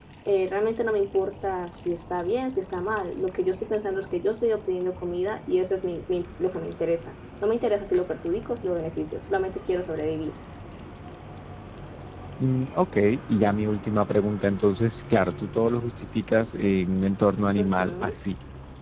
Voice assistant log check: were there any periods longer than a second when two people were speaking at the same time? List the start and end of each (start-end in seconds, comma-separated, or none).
none